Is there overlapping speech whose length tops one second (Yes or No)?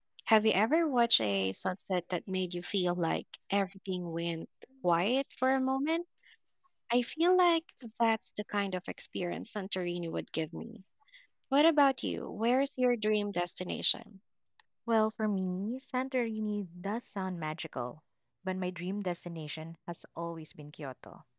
No